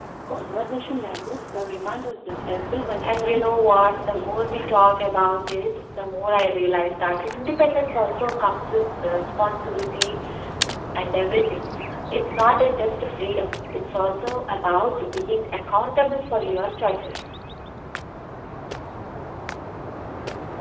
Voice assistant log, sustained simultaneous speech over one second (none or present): present